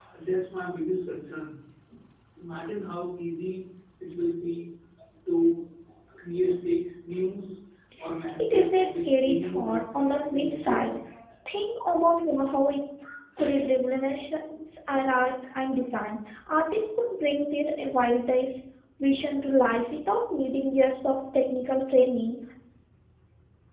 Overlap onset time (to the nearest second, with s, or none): 8 s